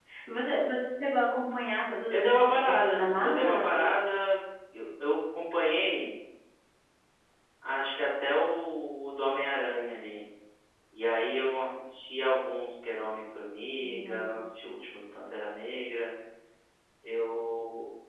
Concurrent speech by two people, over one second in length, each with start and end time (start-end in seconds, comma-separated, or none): 2.1-3.9